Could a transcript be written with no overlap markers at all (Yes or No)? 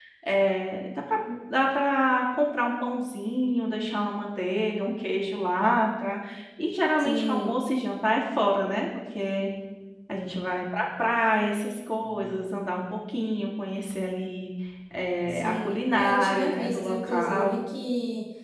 No